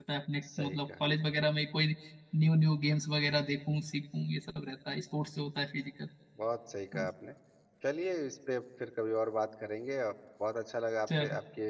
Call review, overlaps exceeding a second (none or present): none